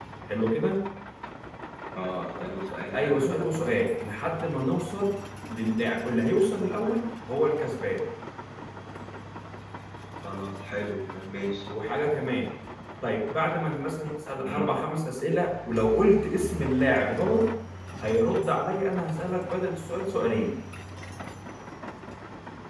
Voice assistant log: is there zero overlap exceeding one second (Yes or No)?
Yes